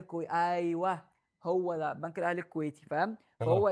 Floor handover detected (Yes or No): No